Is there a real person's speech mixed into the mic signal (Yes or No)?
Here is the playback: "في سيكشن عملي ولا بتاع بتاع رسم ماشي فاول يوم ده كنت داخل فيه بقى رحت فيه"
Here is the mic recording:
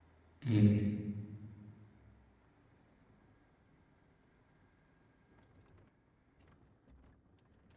Yes